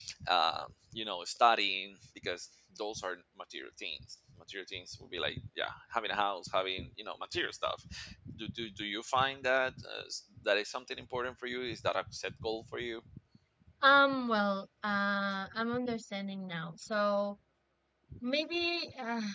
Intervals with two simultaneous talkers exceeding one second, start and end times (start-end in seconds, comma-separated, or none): none